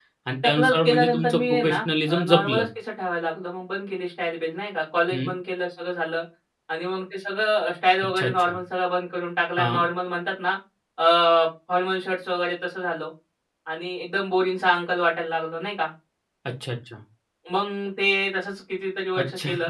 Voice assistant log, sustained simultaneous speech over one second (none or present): present